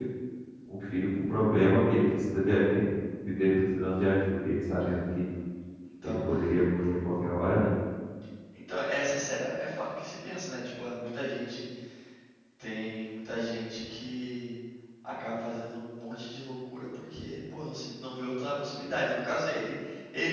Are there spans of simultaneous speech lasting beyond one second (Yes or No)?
No